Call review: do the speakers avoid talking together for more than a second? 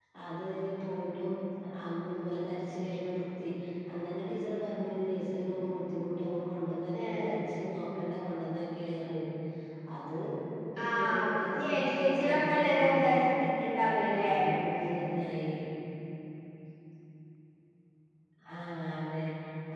No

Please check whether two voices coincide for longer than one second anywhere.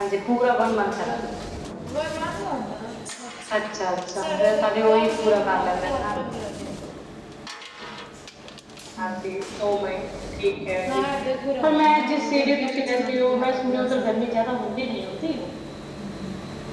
Yes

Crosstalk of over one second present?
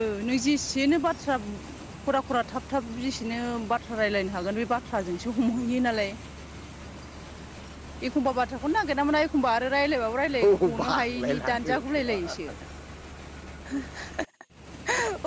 Yes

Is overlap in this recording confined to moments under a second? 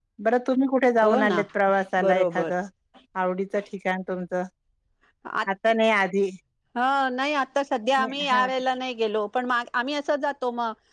Yes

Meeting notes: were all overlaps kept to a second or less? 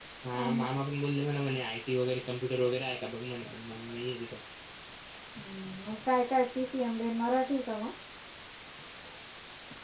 Yes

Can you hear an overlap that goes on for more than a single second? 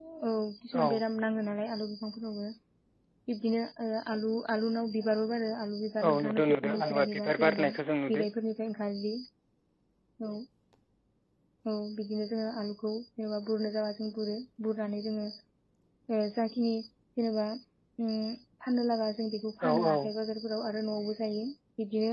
Yes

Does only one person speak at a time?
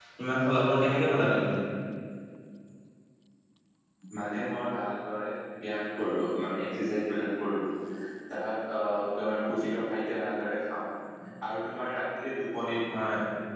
Yes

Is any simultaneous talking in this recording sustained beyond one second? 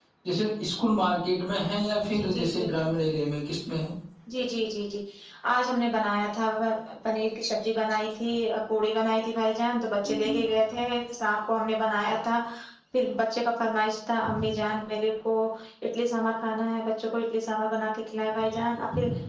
No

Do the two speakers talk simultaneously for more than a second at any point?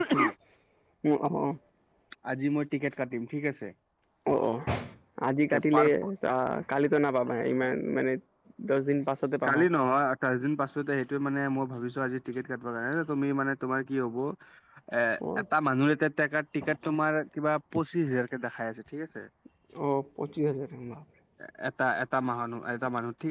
No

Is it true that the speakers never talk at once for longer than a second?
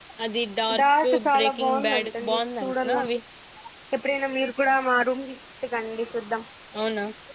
No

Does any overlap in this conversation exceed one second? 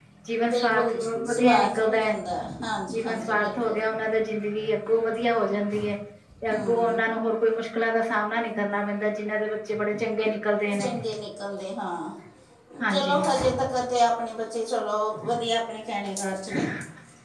Yes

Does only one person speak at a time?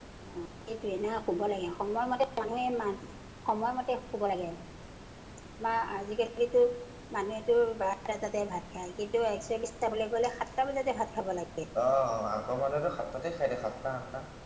Yes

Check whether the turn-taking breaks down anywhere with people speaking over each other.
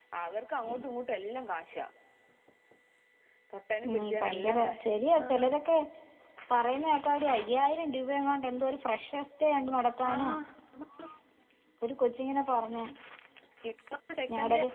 Yes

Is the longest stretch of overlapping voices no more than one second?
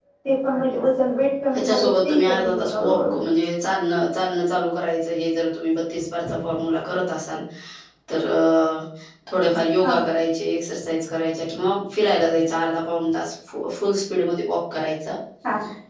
No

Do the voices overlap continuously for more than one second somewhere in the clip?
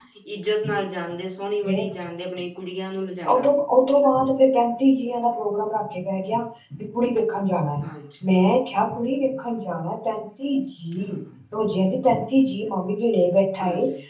No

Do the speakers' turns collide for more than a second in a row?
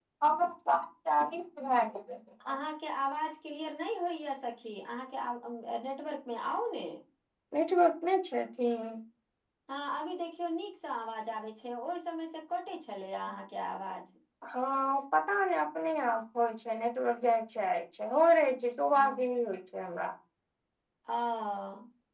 No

